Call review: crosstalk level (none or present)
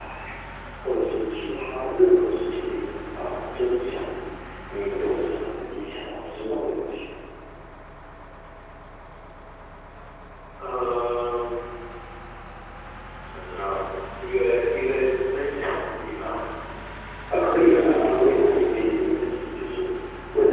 present